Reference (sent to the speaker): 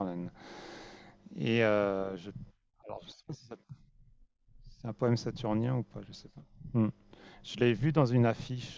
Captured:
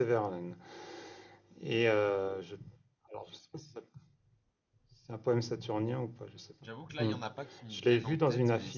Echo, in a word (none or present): present